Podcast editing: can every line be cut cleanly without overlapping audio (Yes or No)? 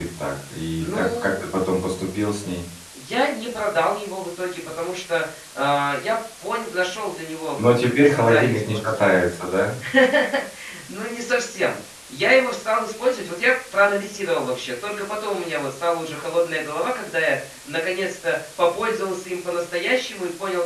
No